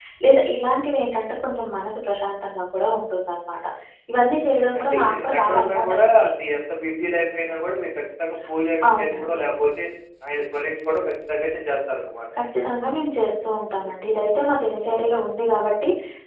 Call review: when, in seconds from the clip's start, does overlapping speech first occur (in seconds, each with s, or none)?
4.7 s